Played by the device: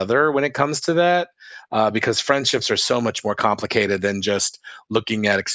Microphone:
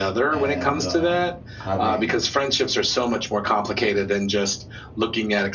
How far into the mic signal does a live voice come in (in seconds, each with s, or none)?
0.3 s